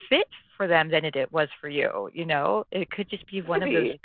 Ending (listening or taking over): listening